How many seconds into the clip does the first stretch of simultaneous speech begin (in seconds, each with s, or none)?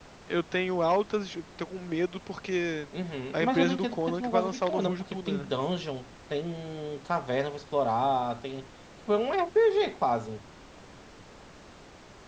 3.3 s